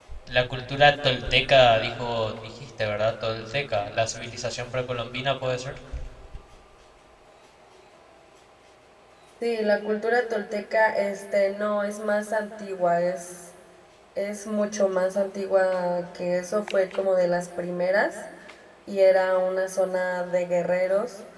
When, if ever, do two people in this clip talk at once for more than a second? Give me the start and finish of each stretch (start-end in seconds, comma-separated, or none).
none